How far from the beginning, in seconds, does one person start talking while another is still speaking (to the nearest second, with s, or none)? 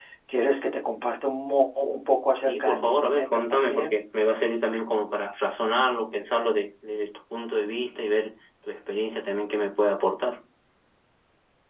2 s